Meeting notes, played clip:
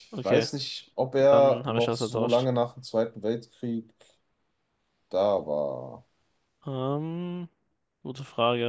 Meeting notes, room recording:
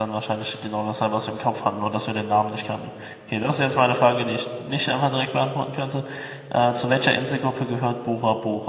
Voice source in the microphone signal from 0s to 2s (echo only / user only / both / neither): user only